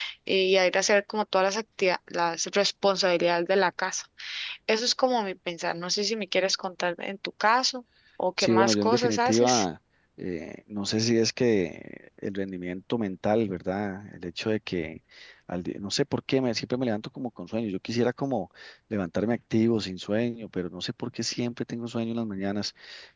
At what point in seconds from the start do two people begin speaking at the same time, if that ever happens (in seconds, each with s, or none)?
8.4 s